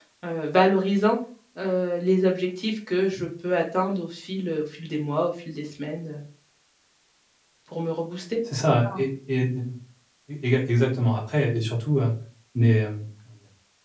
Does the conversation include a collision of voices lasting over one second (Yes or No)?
No